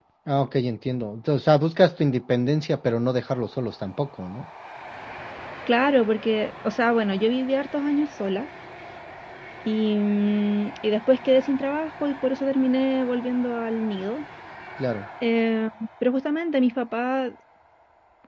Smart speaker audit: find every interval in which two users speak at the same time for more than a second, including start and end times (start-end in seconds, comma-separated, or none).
none